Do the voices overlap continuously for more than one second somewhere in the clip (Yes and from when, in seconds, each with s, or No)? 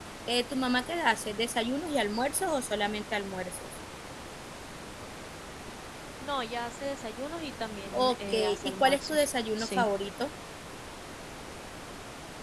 Yes, from 7.9 s